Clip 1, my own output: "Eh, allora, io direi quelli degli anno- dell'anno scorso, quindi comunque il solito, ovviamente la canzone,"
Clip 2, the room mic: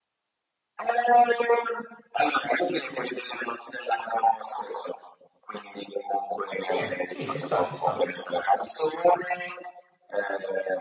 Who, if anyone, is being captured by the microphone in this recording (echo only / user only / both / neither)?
both